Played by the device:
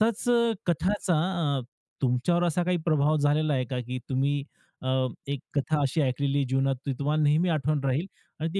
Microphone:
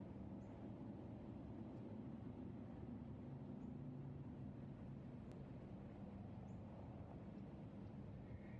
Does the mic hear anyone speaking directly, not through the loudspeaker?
No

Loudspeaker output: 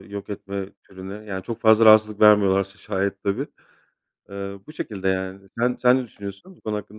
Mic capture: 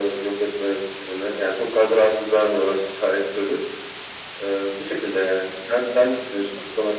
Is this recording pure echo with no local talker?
Yes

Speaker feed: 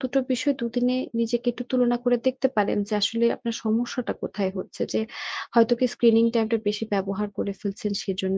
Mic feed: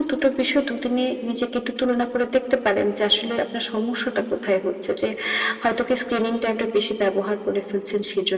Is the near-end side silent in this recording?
Yes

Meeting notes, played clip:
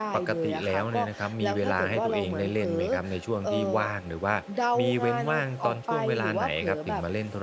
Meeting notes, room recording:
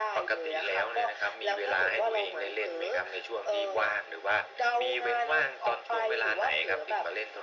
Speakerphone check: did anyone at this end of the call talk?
No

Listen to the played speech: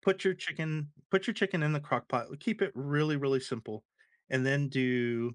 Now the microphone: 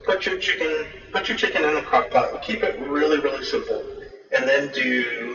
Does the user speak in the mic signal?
No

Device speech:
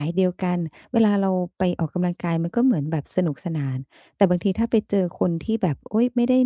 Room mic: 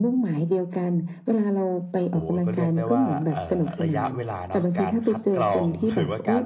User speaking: Yes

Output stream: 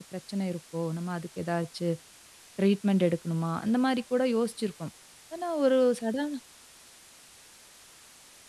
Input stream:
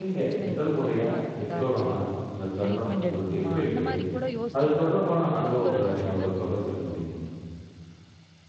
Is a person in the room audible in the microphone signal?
Yes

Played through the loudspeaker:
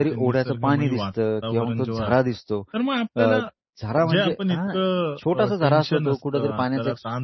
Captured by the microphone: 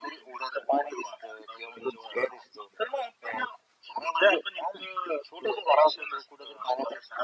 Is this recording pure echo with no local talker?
Yes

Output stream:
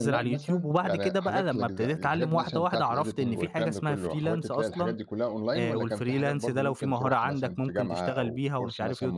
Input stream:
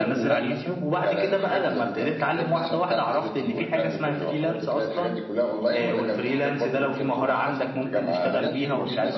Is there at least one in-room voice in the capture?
Yes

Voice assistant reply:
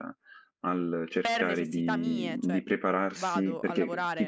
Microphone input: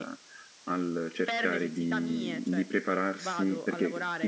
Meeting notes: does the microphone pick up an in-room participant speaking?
No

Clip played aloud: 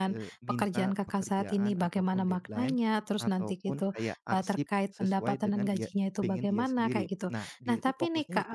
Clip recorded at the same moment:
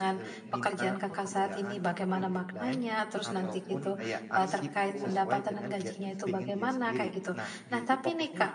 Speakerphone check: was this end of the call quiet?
No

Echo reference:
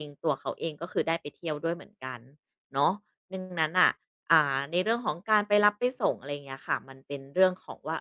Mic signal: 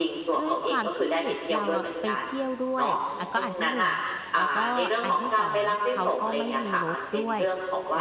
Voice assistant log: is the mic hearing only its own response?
No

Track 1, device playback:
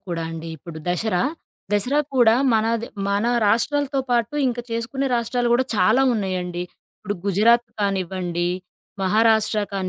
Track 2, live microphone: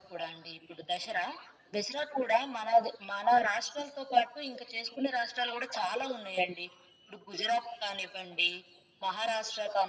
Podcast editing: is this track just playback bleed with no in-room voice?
Yes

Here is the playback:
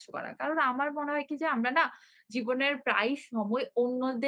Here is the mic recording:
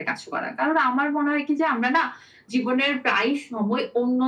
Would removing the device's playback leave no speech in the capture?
Yes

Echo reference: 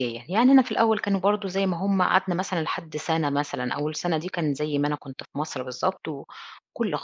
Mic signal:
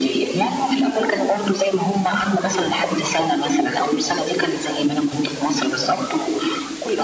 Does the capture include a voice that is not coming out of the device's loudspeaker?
No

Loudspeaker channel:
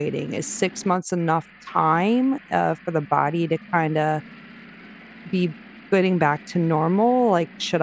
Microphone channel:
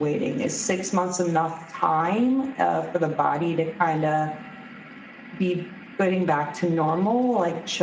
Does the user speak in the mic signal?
No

